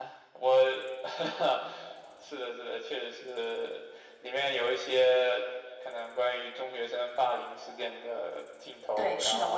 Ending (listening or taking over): taking over